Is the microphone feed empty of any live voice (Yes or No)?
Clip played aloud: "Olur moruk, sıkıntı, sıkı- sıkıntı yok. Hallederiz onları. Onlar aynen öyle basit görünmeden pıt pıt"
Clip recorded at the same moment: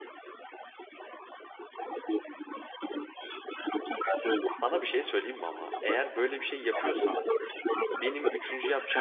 No